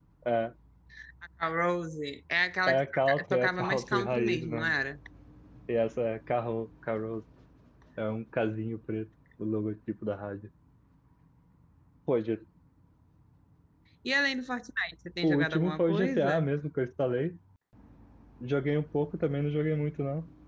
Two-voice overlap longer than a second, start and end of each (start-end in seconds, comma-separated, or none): 2.7-4.7, 15.2-16.5